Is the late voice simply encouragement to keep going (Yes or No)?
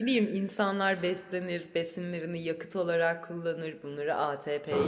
Yes